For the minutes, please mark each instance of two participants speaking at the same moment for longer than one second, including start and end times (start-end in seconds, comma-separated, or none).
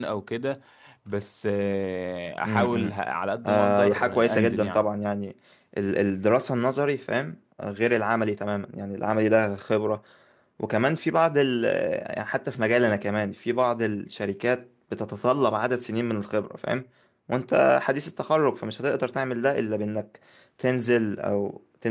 3.5-4.9